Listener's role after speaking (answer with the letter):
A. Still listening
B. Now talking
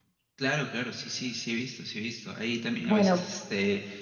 A